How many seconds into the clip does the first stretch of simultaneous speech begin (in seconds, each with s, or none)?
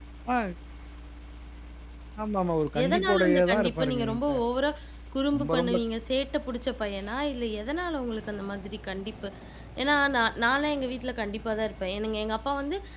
2.8 s